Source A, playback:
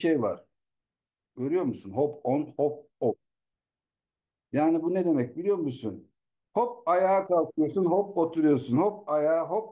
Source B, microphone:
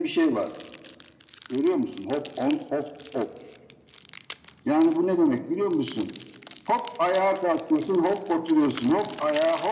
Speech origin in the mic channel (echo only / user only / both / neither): echo only